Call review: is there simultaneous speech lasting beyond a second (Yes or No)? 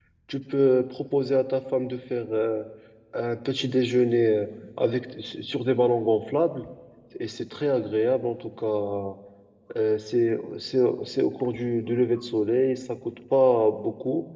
No